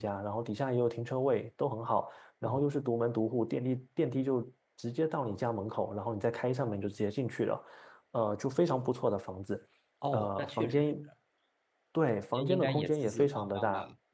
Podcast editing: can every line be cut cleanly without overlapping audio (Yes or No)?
No